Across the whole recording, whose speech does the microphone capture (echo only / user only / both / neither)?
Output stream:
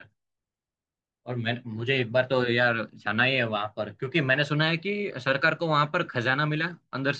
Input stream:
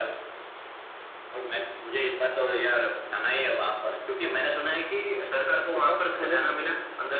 both